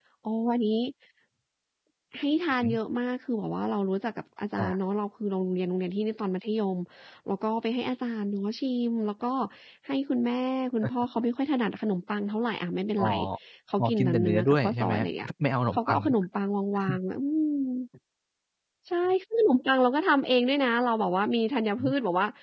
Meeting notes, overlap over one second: present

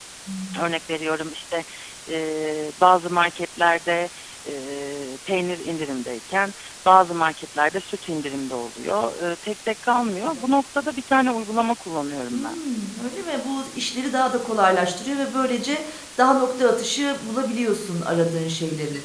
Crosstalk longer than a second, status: none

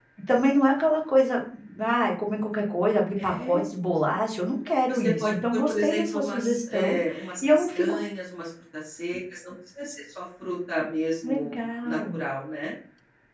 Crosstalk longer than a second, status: present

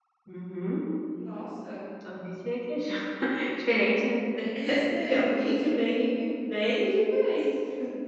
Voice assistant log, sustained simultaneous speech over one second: none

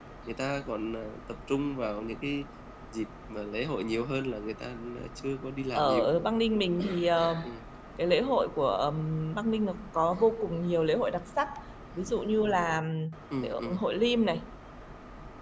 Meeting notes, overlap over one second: none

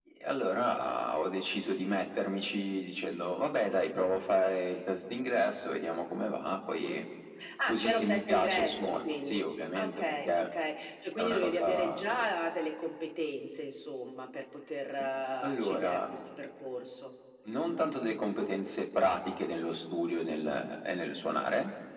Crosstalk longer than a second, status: present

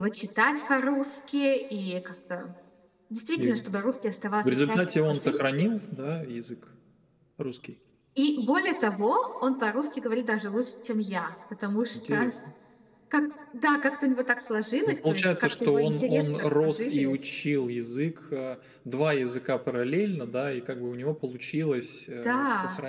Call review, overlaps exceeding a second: present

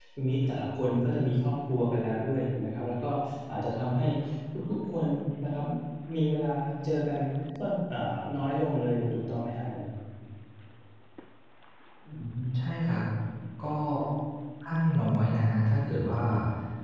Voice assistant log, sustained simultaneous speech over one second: none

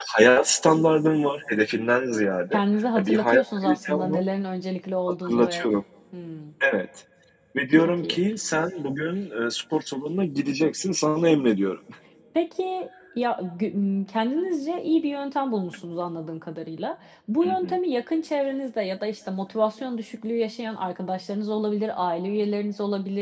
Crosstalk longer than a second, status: present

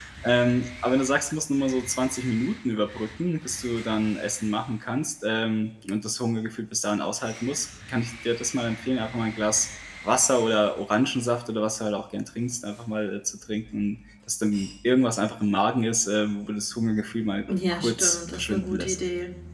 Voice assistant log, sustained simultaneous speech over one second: present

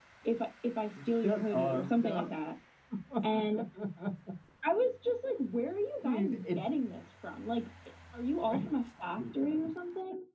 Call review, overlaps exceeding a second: present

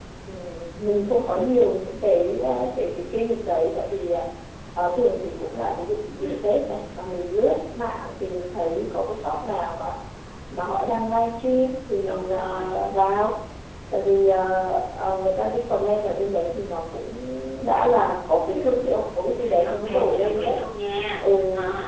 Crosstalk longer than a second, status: present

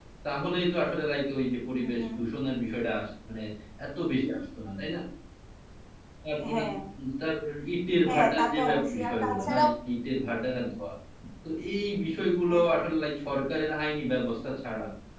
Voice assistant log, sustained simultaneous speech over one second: present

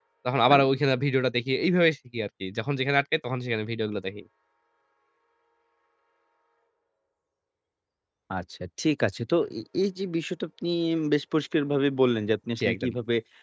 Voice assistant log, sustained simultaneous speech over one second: none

